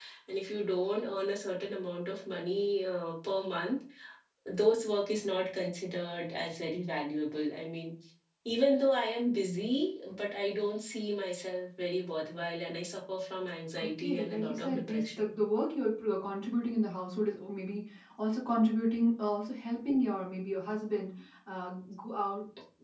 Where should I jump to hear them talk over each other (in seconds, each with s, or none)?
13.8 s